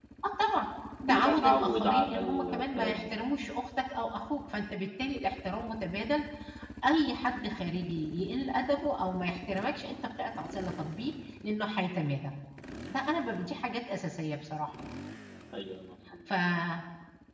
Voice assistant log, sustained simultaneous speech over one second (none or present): present